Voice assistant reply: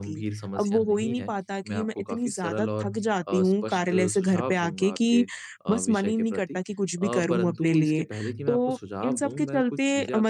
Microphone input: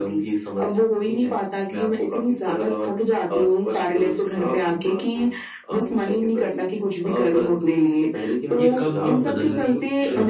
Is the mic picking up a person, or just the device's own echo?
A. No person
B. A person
B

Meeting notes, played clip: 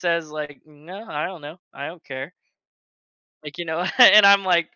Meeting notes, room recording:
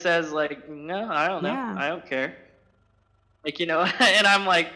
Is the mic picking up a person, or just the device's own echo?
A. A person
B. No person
A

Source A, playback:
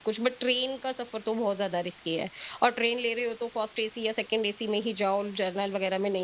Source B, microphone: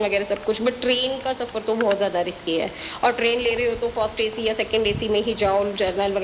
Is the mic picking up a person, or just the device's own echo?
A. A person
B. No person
B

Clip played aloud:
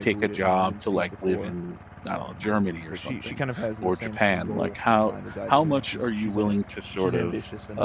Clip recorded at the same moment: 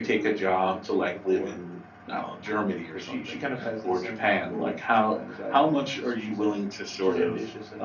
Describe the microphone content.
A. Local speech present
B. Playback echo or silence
B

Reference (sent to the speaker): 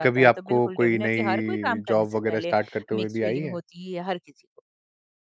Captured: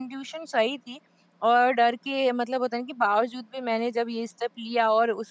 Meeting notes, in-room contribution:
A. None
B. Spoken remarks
B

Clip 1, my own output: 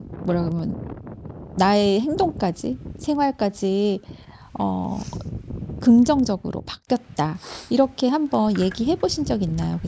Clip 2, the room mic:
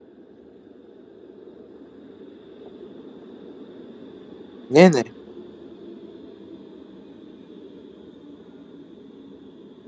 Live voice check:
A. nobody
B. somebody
B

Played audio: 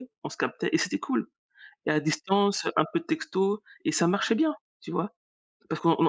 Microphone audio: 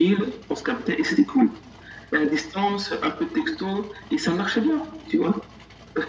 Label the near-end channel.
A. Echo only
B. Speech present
A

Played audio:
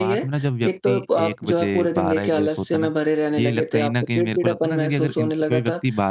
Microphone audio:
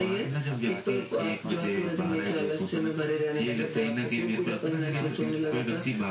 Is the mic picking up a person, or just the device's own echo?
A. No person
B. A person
B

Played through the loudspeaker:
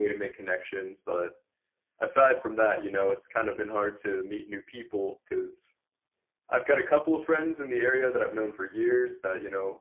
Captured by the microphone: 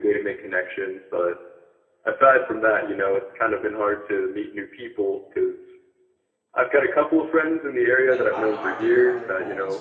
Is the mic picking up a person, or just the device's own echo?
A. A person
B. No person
A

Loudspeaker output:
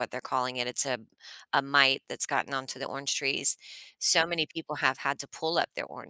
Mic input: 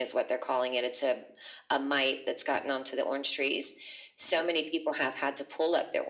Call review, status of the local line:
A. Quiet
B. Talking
A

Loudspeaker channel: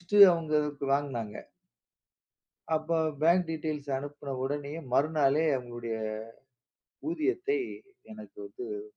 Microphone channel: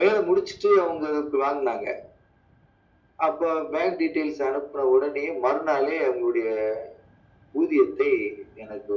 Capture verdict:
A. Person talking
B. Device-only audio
B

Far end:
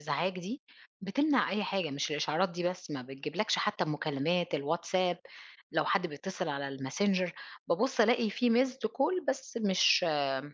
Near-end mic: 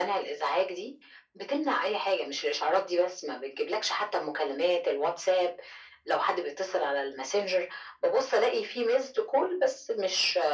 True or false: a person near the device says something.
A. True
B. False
B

